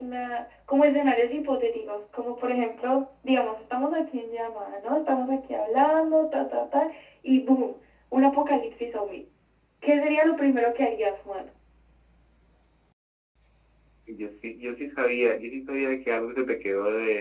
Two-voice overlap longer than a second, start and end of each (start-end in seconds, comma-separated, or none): none